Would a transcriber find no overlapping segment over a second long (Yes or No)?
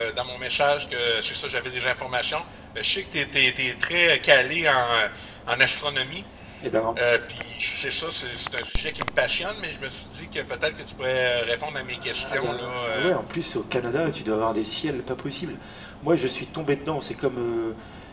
No